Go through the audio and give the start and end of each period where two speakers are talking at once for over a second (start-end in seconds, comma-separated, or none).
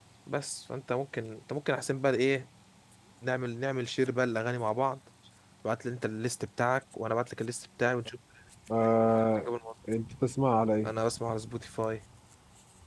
none